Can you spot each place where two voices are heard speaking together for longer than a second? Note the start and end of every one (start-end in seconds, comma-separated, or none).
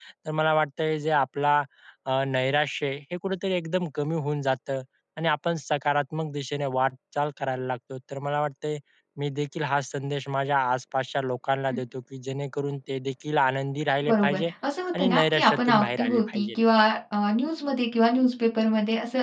15.0-16.5